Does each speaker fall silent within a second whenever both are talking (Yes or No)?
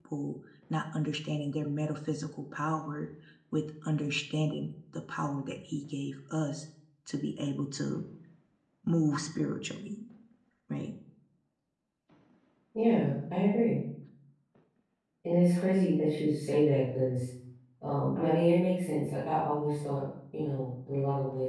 Yes